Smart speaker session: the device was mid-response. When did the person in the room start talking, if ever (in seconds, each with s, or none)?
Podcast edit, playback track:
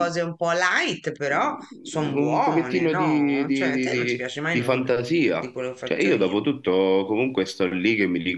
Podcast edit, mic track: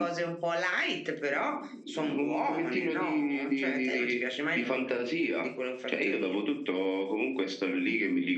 none